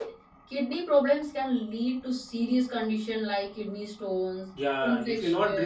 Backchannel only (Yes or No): No